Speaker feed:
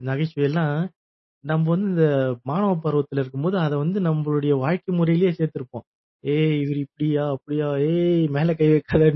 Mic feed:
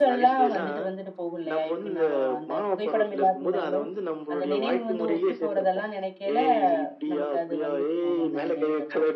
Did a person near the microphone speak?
Yes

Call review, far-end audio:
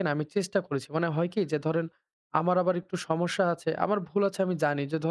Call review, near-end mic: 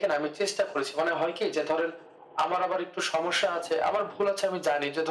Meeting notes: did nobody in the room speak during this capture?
Yes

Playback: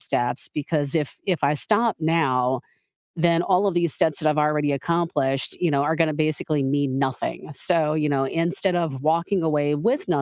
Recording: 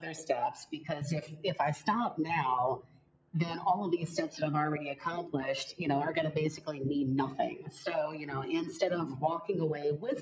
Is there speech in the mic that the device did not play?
No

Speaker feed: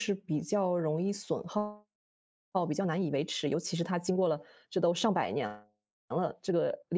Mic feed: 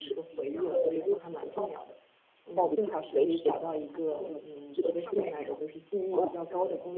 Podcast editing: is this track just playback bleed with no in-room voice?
No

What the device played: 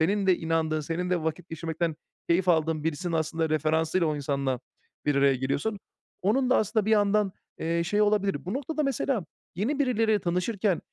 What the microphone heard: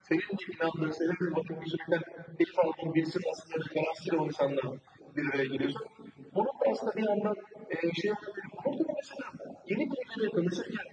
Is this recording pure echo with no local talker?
Yes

